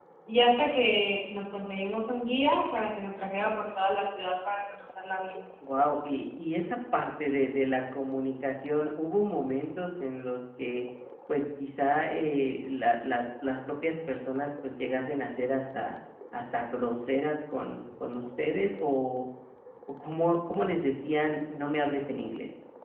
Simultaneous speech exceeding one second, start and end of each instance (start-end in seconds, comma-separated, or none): none